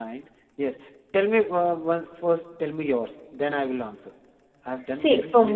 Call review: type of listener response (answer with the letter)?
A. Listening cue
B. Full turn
B